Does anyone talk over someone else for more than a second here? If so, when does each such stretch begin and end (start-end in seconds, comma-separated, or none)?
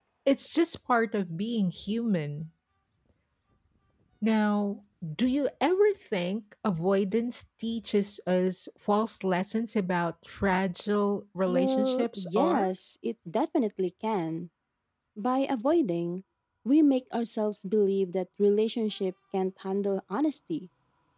11.5-12.7